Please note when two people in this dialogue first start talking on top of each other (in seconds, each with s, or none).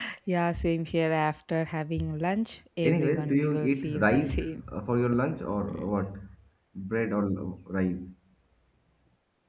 2.8 s